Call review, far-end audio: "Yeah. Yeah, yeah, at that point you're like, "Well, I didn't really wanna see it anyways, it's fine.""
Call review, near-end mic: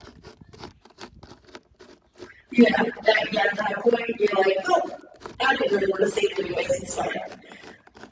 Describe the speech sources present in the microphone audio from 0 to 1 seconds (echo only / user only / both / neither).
neither